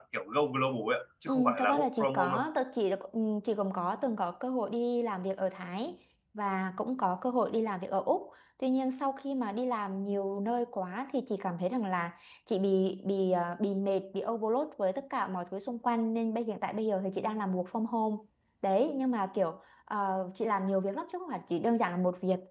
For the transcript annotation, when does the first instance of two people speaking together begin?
1.3 s

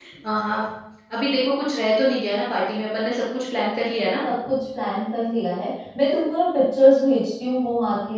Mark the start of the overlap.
none

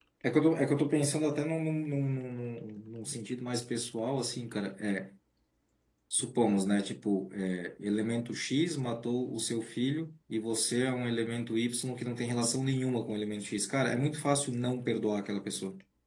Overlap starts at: none

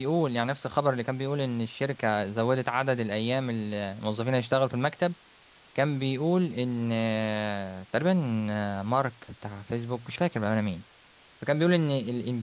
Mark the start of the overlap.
none

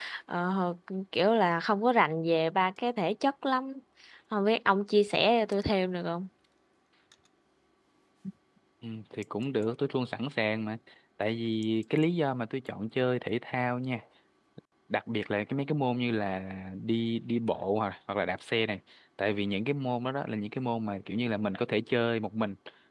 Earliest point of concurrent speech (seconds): none

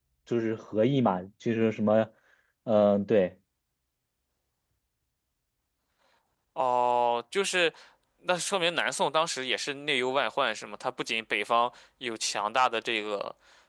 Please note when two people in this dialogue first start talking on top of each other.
none

